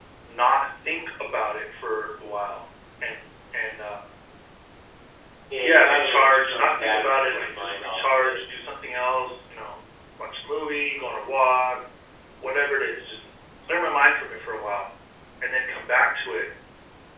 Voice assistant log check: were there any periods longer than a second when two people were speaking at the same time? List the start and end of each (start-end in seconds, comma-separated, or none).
5.6-8.4